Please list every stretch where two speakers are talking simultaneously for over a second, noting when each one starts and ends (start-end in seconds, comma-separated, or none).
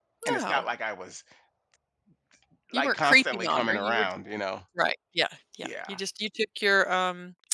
2.7-4.1